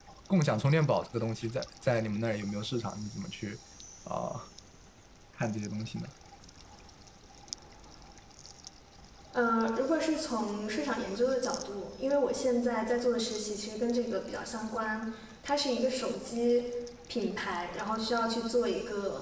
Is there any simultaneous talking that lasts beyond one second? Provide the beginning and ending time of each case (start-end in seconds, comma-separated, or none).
none